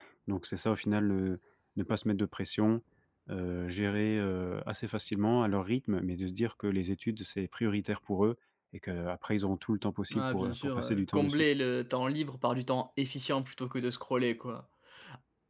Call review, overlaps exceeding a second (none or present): present